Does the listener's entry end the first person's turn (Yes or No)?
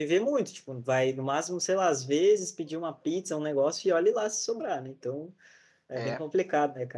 No